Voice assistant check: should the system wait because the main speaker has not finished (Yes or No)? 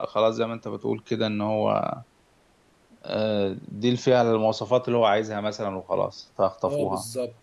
No